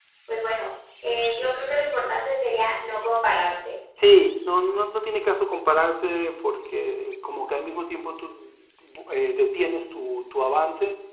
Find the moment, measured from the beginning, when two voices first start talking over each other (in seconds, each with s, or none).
none